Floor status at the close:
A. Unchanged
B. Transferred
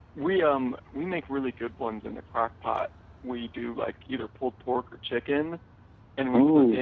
A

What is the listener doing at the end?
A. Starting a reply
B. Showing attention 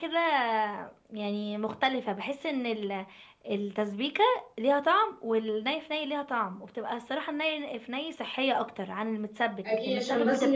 A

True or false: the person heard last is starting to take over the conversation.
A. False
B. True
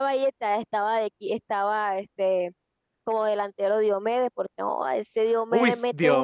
B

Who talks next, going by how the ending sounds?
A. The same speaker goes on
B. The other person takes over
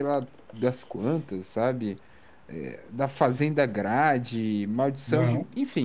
A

